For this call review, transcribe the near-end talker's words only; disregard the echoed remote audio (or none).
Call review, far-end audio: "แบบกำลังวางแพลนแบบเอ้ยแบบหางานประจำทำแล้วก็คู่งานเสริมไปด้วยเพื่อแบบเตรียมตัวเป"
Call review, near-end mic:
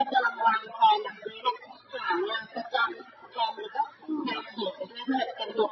none